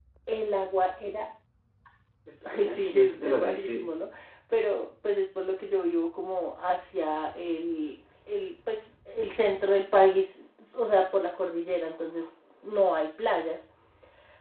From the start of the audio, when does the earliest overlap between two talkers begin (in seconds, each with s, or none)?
2.5 s